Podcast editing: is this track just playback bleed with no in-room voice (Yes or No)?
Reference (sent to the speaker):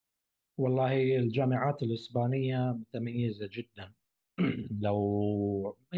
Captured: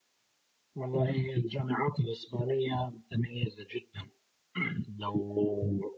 Yes